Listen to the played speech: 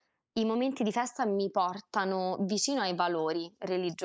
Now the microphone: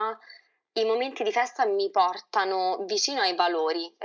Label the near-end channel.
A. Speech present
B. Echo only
B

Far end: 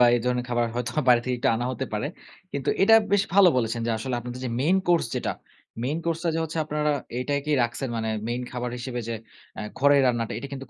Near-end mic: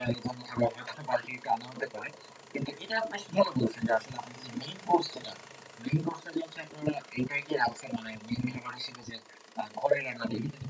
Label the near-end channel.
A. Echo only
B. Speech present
A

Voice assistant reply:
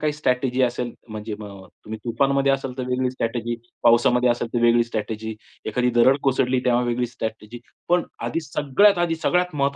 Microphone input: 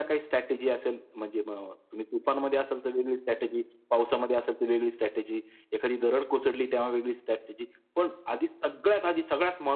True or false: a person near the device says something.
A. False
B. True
A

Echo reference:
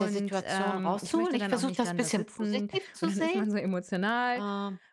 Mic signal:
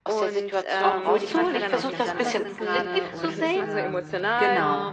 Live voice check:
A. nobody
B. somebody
B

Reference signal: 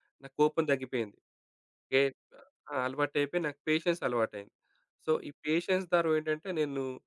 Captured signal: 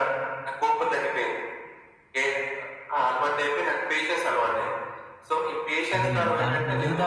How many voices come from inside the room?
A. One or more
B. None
A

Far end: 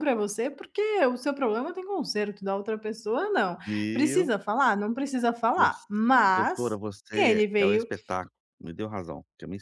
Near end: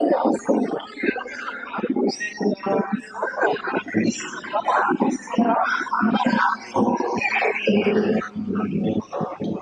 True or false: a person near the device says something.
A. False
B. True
A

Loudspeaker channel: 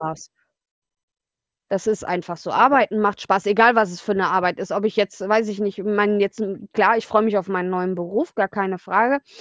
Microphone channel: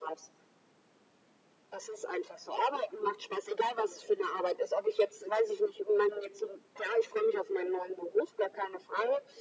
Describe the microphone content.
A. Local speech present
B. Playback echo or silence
B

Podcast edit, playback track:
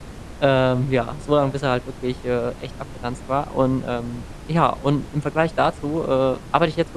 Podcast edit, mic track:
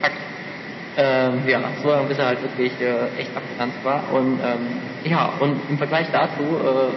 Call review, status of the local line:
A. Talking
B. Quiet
B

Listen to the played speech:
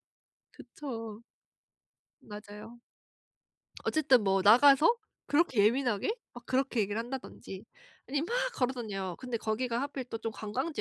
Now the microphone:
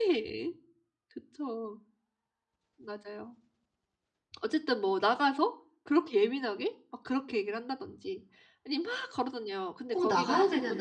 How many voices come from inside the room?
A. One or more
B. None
A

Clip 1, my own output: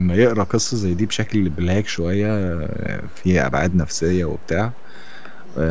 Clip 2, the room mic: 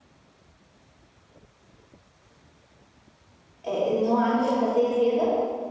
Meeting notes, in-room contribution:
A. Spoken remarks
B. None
A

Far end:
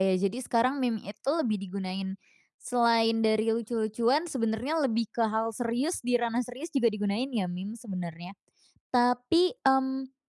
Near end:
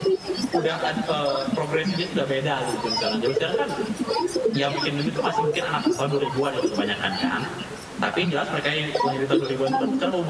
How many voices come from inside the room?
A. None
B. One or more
B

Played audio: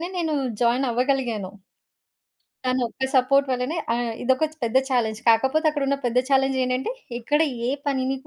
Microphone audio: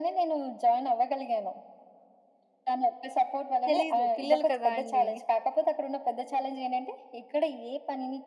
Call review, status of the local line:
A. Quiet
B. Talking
B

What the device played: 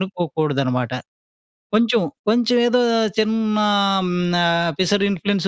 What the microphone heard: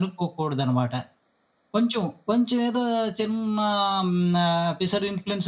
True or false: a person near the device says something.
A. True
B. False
B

